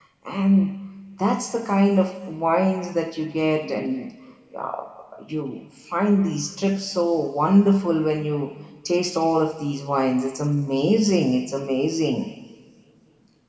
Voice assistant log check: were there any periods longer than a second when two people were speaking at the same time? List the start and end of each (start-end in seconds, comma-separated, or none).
none